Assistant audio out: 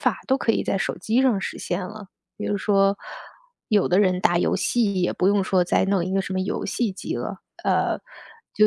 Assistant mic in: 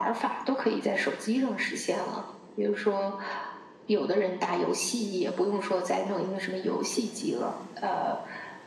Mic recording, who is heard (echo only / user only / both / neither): echo only